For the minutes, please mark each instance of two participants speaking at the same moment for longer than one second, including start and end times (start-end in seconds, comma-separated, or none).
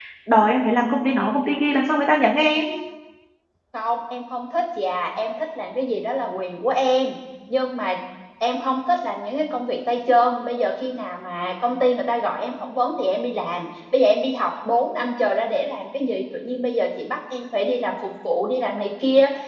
none